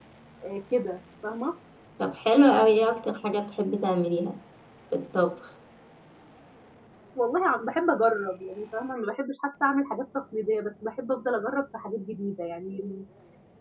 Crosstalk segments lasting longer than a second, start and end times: none

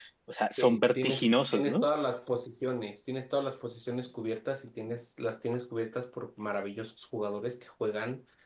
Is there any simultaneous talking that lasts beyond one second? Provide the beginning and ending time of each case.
0.6-1.9

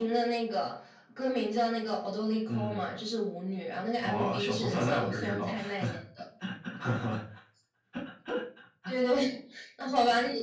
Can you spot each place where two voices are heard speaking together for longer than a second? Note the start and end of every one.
4.0-6.0

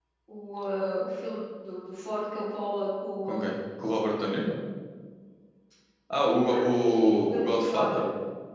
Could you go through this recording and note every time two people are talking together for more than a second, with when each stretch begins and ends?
6.5-8.0

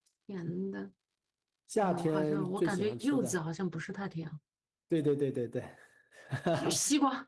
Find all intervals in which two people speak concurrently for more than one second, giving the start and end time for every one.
1.8-3.4

